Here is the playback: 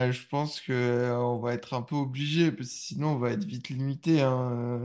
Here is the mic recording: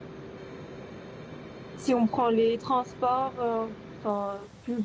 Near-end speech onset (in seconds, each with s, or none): 1.8 s